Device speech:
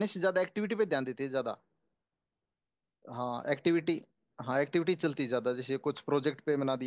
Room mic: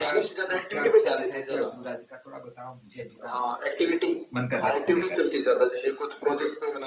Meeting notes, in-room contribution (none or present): present